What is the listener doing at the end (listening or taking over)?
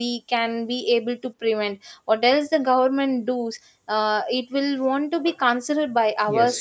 taking over